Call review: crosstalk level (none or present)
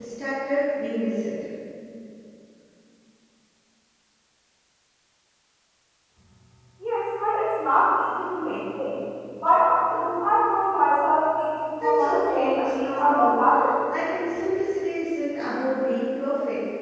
present